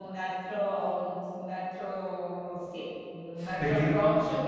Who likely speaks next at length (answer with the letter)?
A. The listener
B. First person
B